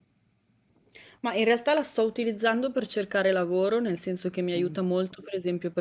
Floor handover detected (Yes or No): No